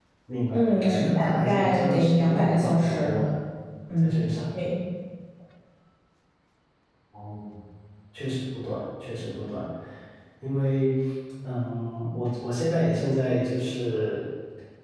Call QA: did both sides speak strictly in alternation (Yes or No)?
No